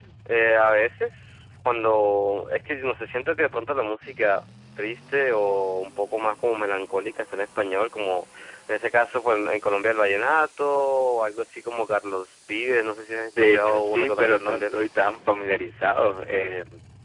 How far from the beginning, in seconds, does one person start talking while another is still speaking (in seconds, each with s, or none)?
13.3 s